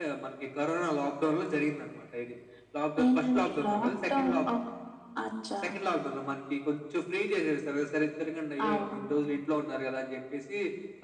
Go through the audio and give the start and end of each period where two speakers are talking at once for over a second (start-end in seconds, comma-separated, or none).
3.0-4.3